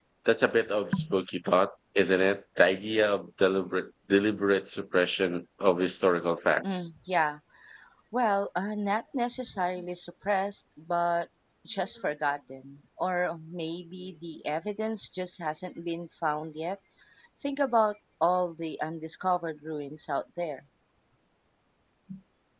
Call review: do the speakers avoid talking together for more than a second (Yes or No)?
Yes